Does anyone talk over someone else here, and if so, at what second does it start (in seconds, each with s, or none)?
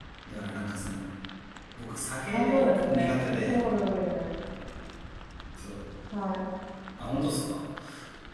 2.3 s